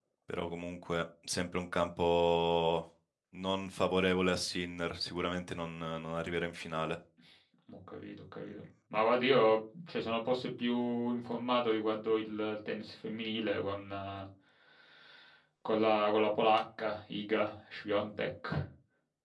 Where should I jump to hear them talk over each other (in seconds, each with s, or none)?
none